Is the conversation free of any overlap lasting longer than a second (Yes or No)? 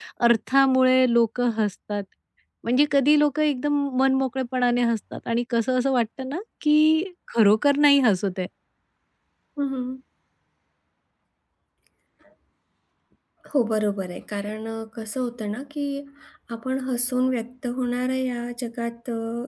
Yes